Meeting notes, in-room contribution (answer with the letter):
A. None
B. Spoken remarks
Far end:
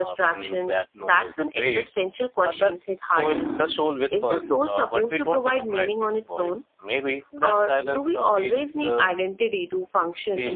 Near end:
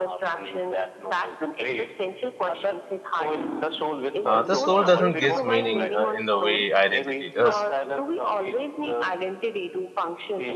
B